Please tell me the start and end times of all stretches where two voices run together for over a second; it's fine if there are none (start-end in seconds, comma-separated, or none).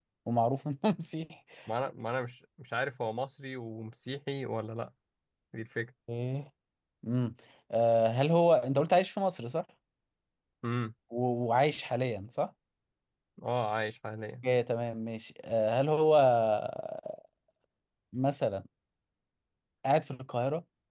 none